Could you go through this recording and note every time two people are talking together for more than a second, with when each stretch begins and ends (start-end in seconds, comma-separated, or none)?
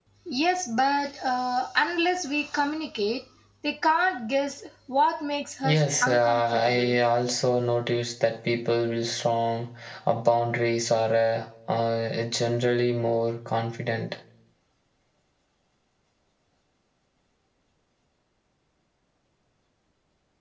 5.6-7.0